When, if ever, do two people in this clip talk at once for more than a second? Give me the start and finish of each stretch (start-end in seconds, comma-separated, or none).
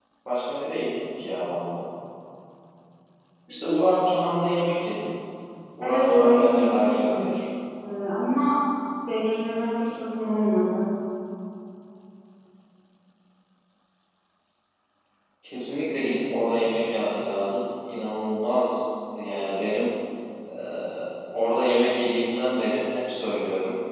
5.8-7.3